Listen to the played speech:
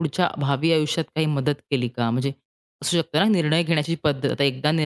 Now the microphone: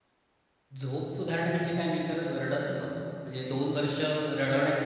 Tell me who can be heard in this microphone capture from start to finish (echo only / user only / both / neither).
user only